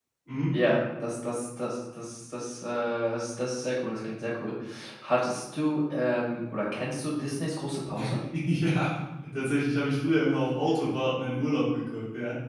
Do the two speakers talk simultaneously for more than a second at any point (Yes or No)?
No